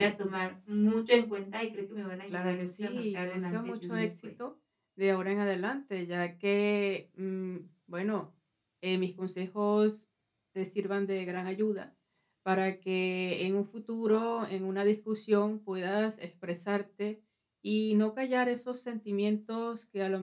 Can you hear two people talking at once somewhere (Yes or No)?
Yes